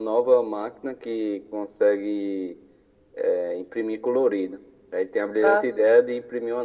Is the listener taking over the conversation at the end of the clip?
No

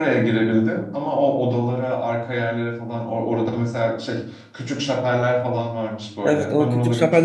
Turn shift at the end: Yes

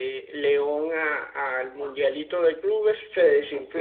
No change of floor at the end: No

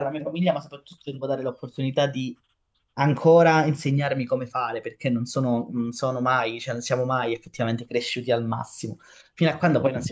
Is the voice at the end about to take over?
No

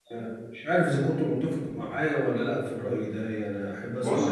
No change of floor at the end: No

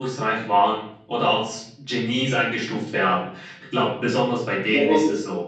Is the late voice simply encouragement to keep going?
No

